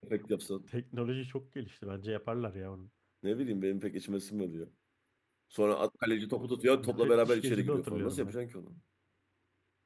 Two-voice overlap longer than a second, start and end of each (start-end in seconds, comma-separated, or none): 6.8-8.4